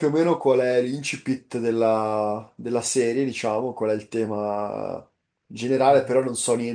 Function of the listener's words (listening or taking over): listening